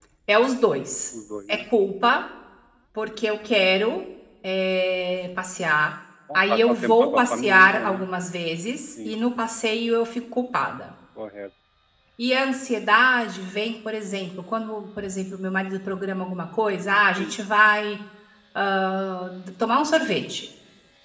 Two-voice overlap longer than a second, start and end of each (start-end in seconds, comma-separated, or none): 6.3-8.1